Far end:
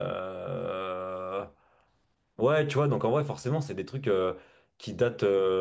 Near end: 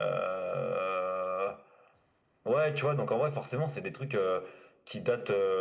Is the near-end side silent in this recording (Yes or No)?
Yes